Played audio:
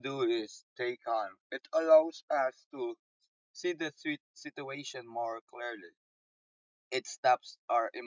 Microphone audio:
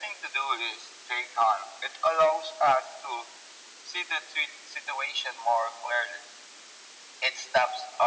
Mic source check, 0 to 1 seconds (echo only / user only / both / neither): echo only